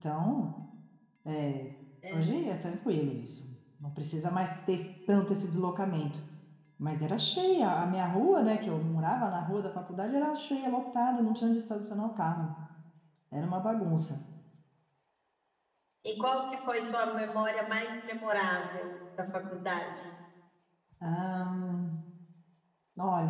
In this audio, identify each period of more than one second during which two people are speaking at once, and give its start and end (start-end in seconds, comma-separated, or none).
none